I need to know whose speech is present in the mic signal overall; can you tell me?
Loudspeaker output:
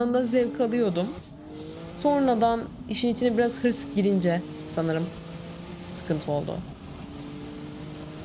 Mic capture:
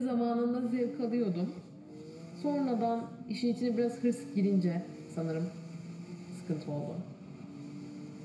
echo only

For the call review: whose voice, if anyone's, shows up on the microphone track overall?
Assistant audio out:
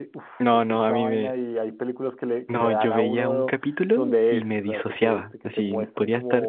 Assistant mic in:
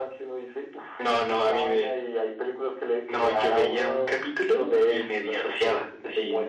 echo only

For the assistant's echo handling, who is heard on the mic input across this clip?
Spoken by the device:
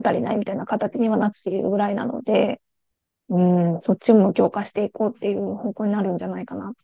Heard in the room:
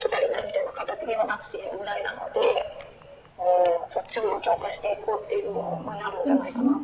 both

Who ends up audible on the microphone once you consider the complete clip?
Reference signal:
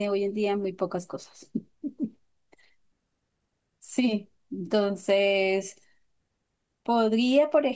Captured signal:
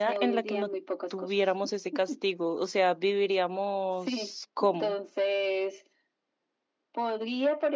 both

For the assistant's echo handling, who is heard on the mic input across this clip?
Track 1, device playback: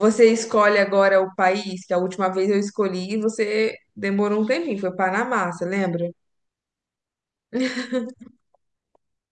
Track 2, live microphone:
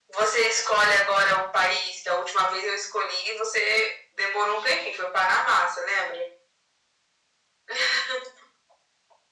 echo only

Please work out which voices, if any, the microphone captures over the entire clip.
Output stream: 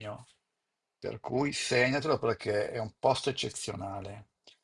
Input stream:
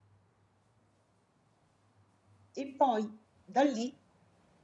user only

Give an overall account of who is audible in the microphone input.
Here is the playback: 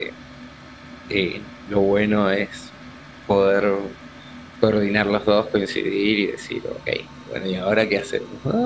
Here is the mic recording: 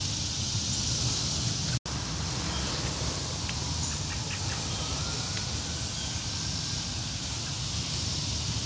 neither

